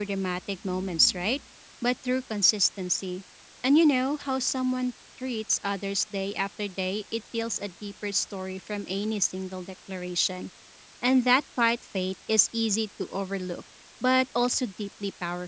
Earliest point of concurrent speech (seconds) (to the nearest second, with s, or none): none